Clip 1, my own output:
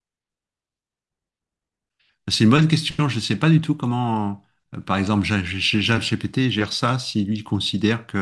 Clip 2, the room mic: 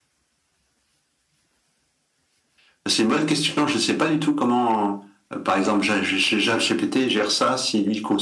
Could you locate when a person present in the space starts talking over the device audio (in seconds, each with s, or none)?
none